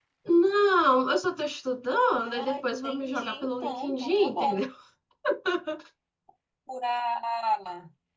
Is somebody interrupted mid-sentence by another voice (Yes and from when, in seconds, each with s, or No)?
Yes, from 2.2 s